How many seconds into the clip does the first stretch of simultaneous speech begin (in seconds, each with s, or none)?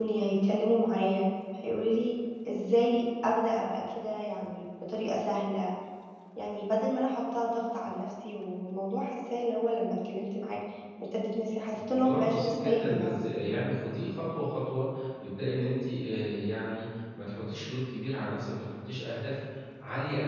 11.7 s